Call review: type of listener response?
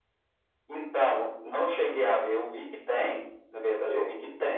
listening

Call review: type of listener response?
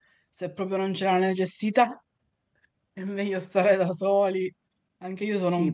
taking over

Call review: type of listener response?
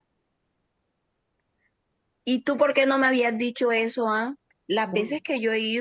listening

